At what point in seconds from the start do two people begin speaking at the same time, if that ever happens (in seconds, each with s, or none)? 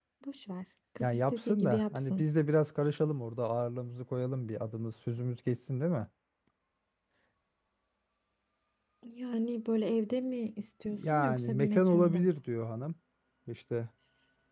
1.0 s